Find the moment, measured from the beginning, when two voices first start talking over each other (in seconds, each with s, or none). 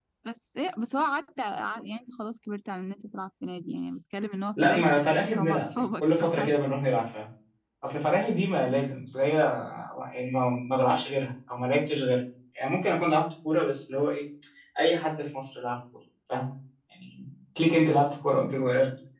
4.6 s